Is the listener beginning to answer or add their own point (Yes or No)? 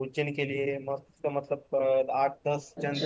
Yes